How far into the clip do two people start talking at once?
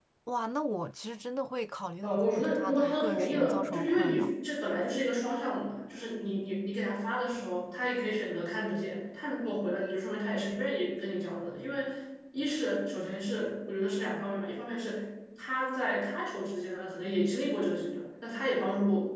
2.0 s

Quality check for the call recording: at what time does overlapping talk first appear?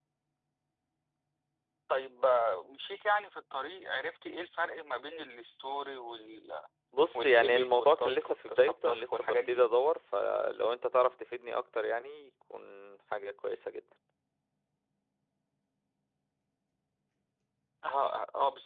7.2 s

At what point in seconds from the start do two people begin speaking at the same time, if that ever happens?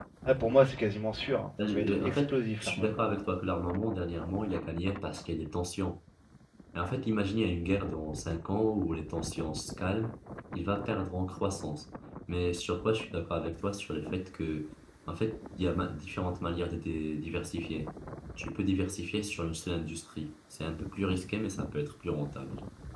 1.6 s

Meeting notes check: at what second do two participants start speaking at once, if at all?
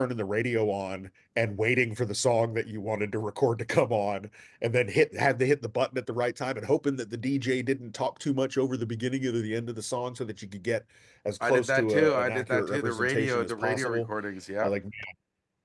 11.4 s

